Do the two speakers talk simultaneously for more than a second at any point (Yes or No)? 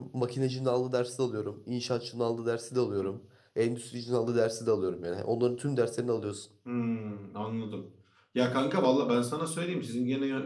No